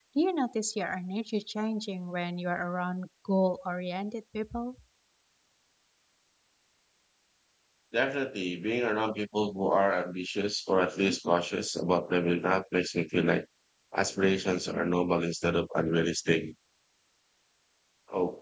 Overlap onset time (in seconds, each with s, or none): none